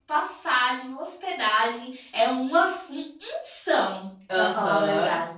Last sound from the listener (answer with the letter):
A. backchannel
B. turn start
B